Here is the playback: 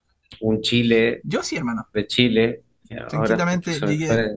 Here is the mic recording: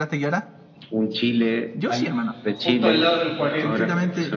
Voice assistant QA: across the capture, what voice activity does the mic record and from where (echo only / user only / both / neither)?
both